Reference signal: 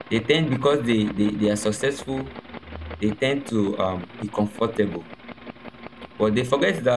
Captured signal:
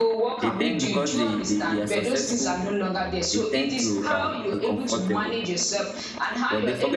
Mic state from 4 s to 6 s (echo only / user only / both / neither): both